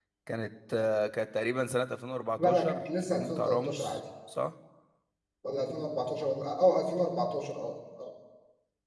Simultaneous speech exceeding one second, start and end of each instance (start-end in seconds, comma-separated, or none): 2.4-4.0